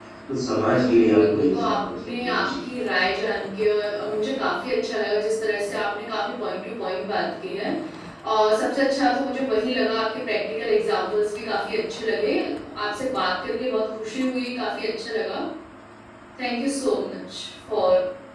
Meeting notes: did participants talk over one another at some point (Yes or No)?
Yes